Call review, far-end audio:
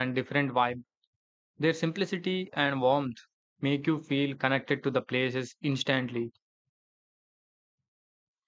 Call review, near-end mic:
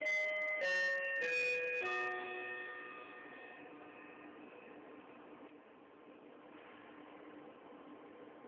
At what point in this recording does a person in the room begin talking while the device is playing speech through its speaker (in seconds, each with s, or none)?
none